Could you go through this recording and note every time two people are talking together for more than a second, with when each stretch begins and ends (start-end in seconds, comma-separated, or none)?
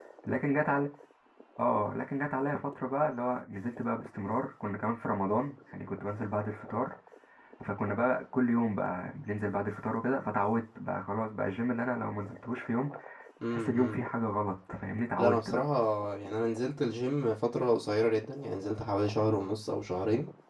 none